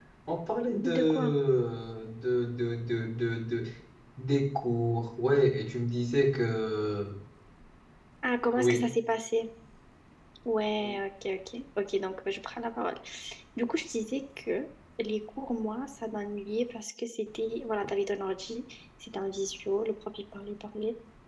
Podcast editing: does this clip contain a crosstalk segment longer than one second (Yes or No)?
No